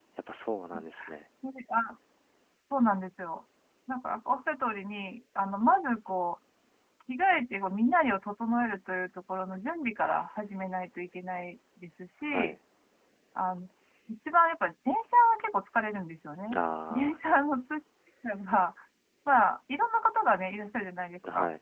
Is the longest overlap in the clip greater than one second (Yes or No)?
No